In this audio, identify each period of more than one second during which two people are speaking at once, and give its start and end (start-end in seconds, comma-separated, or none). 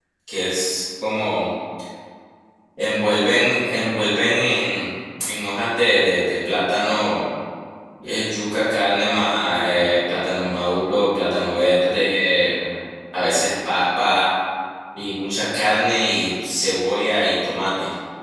none